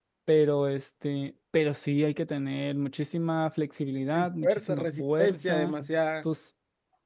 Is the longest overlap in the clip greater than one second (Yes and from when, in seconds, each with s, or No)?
Yes, from 4.1 s